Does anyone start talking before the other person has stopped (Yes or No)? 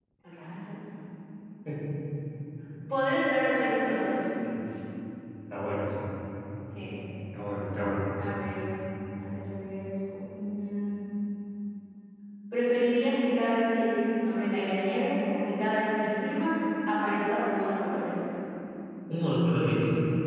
No